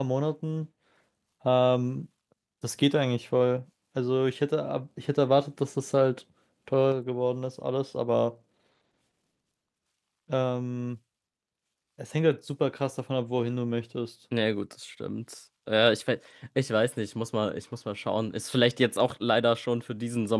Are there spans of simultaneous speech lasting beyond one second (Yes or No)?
No